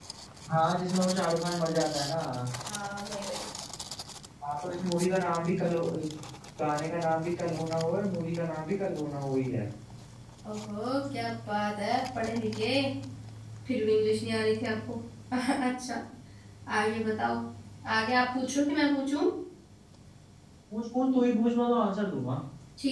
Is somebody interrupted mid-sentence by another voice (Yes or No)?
No